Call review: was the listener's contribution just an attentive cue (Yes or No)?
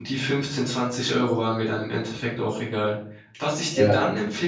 Yes